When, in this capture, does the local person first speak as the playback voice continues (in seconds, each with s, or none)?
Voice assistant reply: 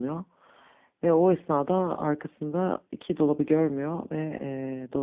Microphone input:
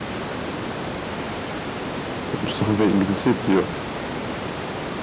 2.4 s